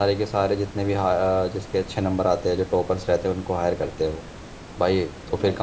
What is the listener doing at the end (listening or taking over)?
listening